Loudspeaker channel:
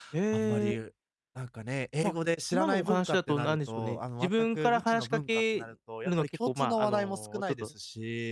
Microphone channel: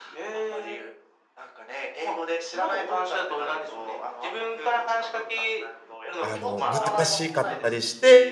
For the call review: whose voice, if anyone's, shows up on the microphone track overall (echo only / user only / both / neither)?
both